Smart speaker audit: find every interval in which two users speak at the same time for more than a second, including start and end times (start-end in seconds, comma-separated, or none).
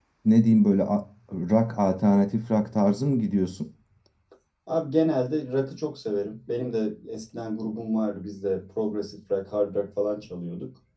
none